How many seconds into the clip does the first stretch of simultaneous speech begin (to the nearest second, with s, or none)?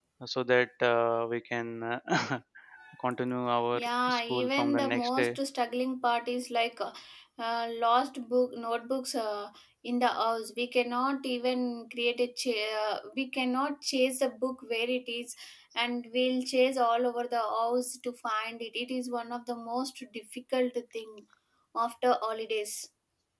4 s